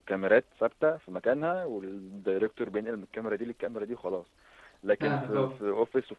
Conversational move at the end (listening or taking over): listening